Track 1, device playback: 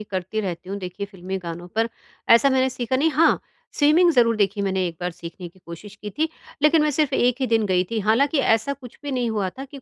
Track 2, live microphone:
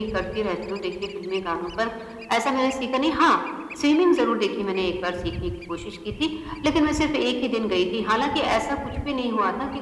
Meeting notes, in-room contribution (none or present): none